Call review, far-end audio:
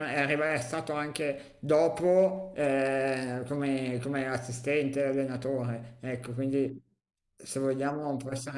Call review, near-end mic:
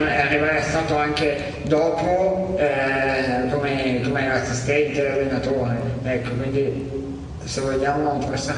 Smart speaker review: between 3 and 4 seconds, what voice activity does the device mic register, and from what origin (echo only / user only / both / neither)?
echo only